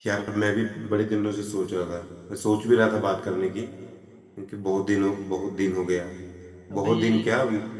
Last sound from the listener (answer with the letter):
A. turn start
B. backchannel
B